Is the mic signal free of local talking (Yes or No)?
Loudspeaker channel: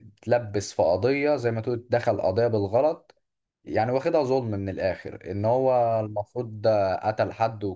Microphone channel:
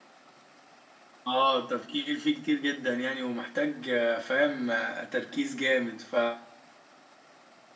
No